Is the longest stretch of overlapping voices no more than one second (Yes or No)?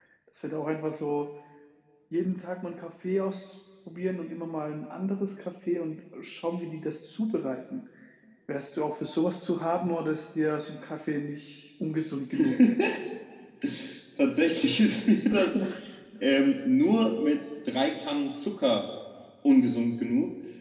Yes